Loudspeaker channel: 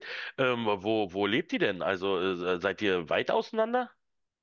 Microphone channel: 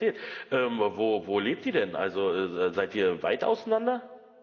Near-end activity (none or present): none